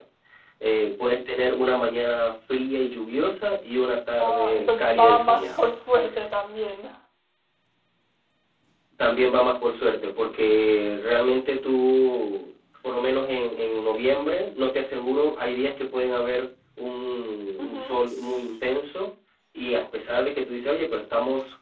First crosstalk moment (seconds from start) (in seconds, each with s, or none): 4.2 s